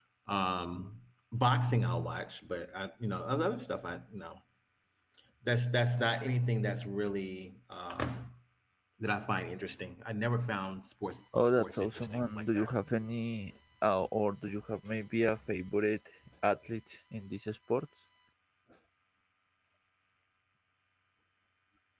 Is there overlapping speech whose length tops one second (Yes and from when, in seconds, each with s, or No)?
Yes, from 11.3 s